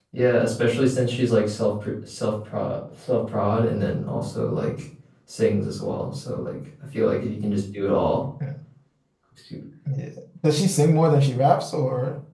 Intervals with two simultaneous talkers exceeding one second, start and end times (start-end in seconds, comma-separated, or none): none